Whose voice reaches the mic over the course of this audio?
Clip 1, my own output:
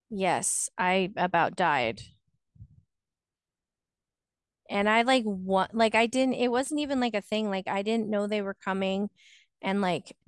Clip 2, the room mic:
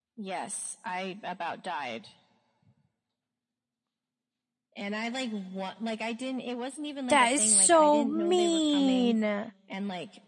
both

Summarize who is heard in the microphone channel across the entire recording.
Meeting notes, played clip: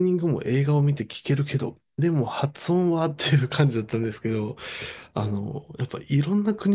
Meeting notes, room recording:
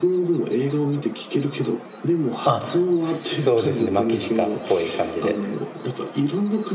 both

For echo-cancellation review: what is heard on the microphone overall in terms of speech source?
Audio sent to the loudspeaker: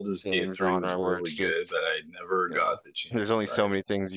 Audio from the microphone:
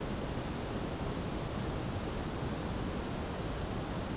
neither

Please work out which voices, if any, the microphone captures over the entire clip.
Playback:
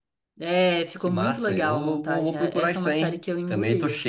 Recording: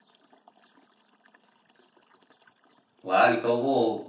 user only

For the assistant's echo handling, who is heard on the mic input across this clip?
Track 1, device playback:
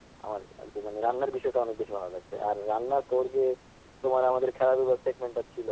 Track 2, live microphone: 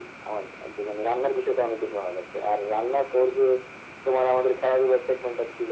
echo only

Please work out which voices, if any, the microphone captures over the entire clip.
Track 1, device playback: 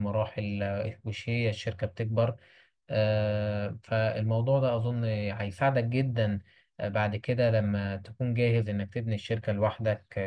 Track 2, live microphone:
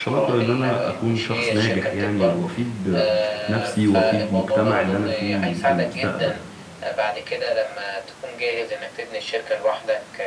both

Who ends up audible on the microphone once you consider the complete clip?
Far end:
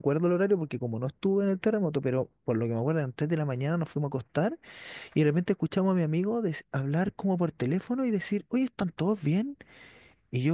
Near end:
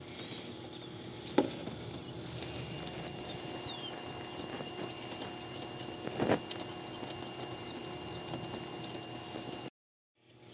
neither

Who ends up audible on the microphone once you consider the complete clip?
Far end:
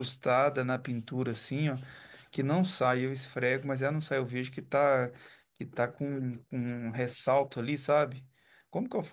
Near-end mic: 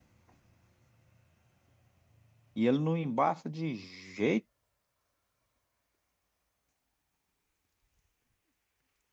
user only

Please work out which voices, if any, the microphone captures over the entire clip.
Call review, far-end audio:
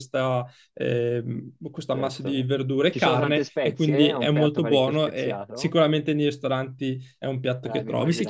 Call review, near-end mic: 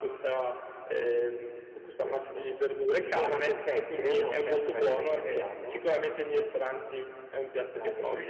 echo only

